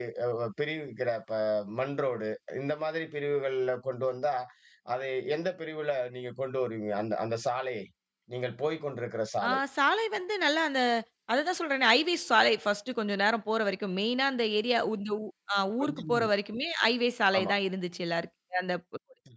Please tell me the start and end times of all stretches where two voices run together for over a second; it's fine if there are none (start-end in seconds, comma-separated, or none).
none